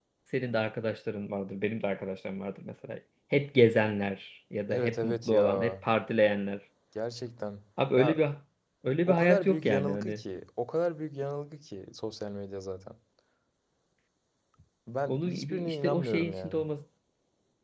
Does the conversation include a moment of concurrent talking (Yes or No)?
Yes